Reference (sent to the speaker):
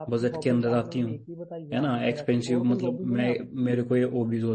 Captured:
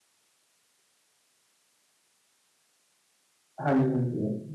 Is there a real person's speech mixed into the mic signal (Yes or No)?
Yes